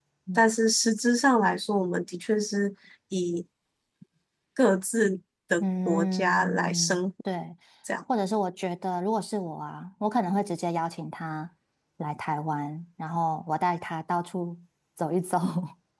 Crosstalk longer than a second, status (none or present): present